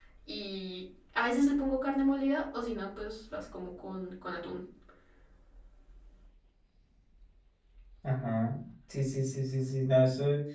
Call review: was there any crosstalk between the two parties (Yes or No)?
No